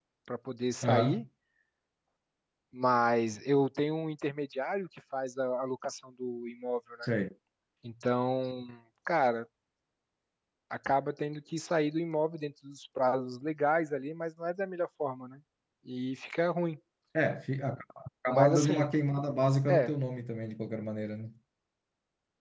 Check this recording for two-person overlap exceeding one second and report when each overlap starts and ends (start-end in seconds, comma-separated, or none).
none